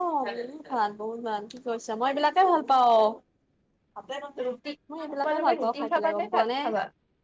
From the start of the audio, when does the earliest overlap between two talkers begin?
5.2 s

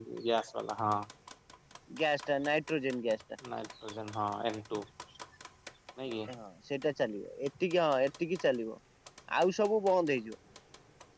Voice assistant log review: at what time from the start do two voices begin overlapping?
none

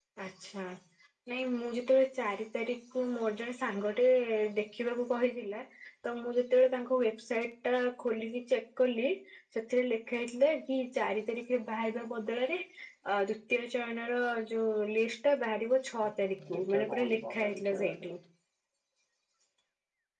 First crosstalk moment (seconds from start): 16.6 s

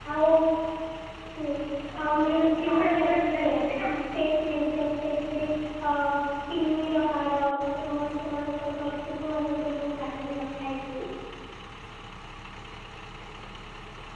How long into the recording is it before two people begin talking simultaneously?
2.0 s

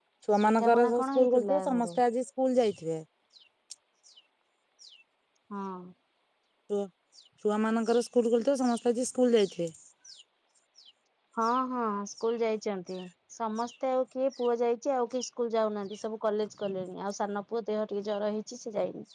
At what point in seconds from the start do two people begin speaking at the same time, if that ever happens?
0.6 s

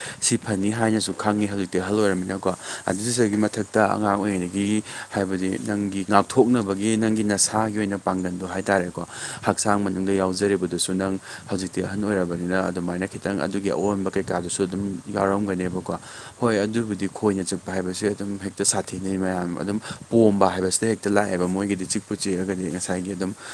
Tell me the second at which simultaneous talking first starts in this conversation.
none

